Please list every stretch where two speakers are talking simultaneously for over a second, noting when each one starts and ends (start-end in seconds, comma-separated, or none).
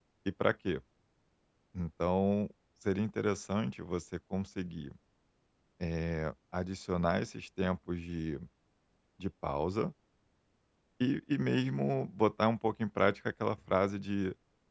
none